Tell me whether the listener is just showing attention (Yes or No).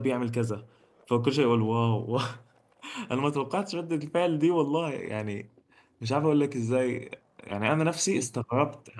Yes